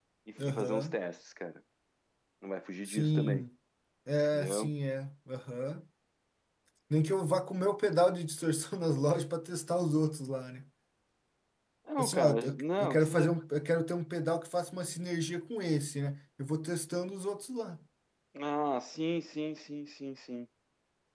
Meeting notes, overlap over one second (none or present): present